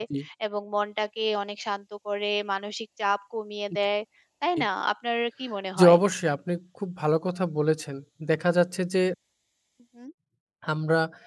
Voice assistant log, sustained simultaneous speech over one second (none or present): none